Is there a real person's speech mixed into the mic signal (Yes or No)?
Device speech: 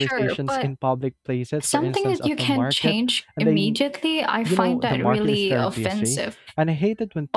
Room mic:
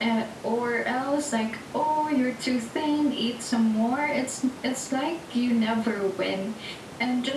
Yes